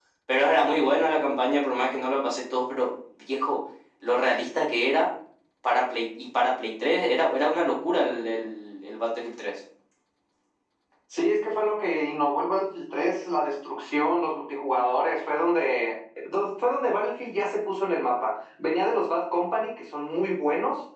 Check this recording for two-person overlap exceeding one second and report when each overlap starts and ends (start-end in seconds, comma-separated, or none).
none